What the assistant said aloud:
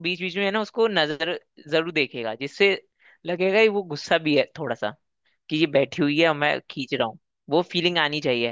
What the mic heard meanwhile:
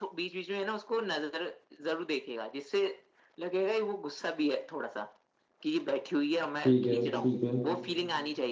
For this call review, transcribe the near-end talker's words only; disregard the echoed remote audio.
ठीक है ठीक है

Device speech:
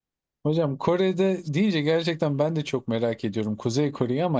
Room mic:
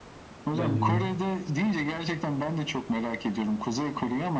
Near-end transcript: Bence de.

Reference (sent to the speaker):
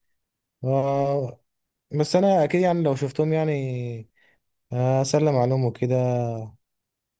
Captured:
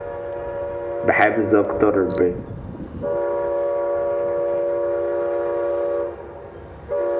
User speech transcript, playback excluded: بحافز اكتر ب...

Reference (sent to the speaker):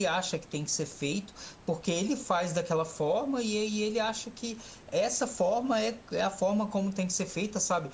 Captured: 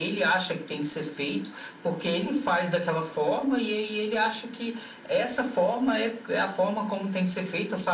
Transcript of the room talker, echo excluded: none

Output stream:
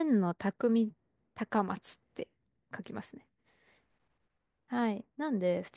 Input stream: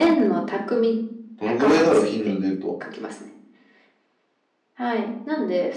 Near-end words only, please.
どのぐらいだろう、頻度で言うと。

